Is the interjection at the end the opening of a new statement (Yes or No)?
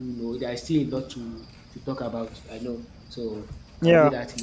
Yes